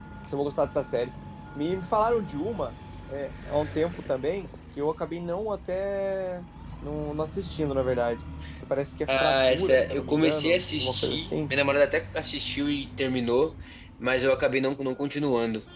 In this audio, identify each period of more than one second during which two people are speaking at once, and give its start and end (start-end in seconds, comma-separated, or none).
9.1-11.3